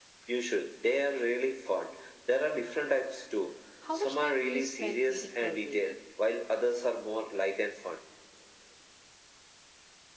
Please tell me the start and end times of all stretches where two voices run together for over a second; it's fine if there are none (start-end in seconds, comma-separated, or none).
4.0-5.9